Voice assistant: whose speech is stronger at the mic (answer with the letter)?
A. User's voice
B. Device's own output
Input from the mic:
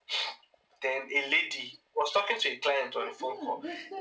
B